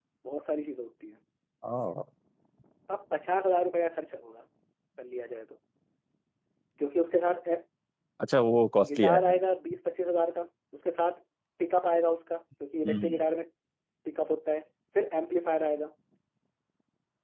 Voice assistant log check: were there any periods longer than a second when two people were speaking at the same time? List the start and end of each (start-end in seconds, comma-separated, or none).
none